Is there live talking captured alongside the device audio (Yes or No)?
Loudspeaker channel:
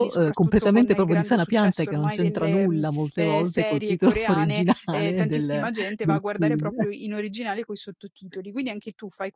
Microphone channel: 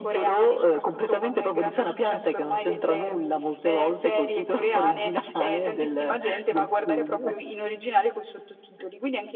No